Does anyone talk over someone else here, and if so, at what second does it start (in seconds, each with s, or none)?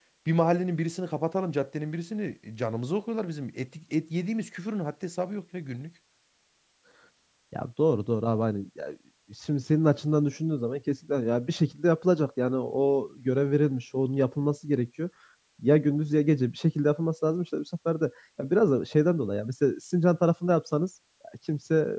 none